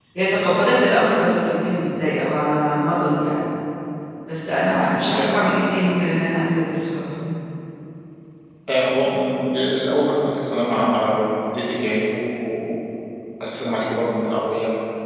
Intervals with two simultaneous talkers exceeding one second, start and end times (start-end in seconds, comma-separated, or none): none